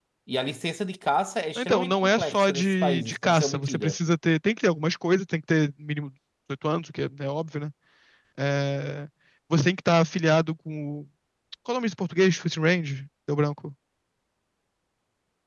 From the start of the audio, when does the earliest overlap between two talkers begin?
1.6 s

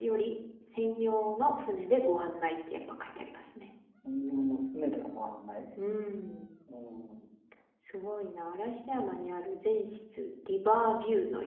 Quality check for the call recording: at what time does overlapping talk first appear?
none

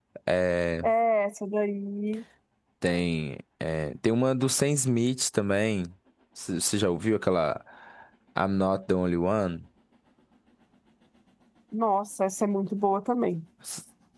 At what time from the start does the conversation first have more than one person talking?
none

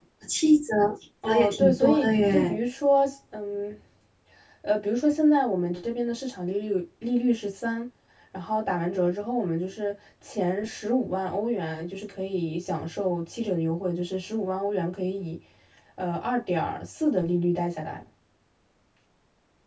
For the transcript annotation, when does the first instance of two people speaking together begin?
1.2 s

